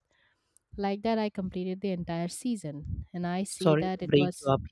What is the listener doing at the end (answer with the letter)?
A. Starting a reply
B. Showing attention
A